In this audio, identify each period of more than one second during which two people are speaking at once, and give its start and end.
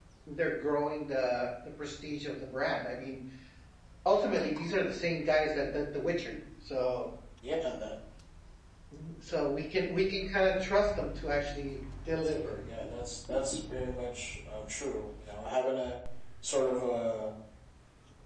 none

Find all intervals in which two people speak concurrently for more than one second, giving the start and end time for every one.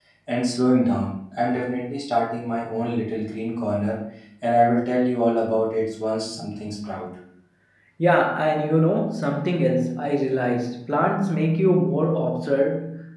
none

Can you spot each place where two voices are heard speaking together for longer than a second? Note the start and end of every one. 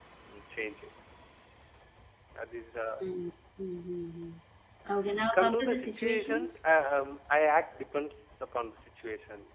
5.3-6.6

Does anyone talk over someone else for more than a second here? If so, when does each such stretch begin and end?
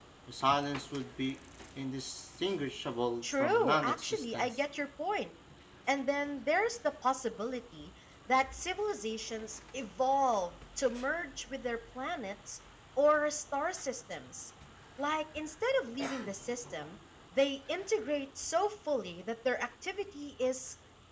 3.2-4.6

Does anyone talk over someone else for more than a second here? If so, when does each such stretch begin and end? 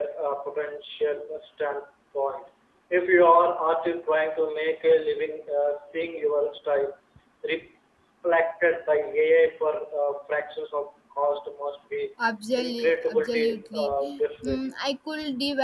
12.6-13.9

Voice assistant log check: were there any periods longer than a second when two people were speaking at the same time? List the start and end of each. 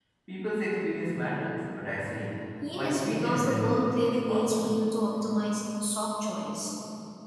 2.8-4.7

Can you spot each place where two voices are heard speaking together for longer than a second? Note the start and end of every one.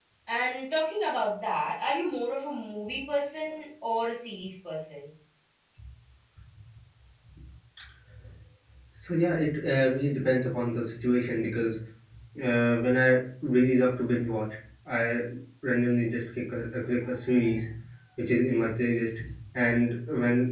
none

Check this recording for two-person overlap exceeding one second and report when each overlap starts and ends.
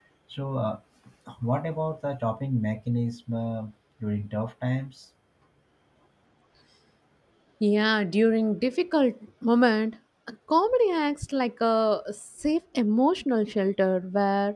none

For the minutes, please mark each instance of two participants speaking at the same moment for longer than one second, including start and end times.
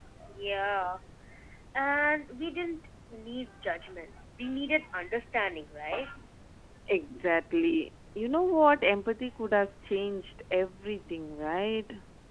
none

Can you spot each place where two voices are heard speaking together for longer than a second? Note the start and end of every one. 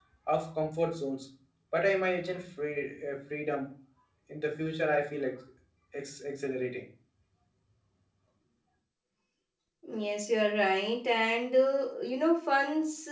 none

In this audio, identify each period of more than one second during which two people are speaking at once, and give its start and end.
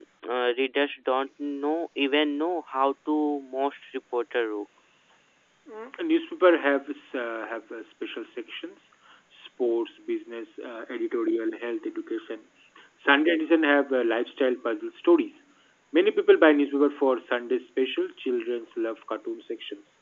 none

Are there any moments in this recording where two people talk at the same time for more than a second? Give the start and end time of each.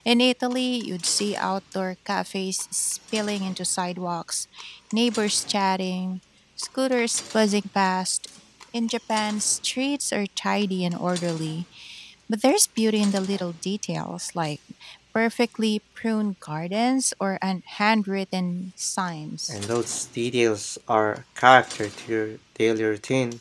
none

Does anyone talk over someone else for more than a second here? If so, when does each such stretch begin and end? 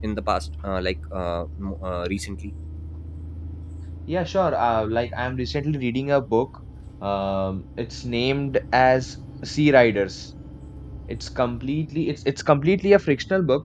none

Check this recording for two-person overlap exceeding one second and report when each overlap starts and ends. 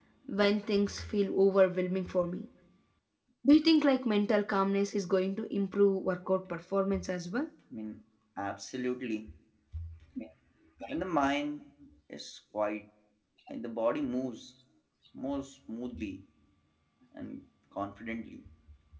none

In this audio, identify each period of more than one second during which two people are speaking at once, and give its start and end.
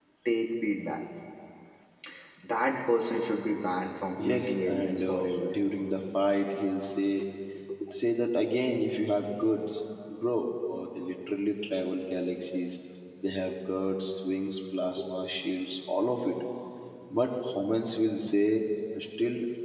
4.2-5.6

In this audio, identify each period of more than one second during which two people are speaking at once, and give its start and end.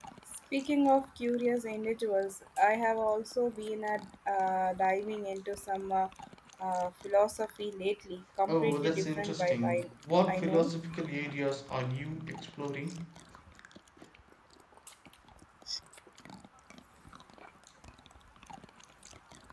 8.5-9.9

